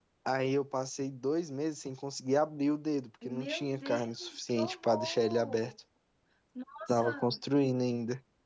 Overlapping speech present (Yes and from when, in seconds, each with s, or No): Yes, from 3.2 s